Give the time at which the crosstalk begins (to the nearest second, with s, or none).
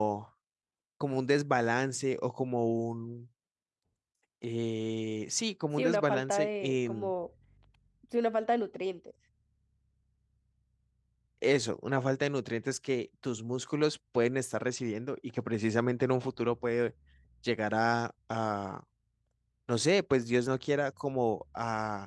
6 s